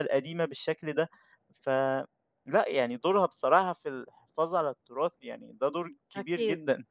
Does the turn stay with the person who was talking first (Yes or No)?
No